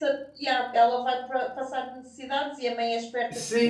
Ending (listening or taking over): taking over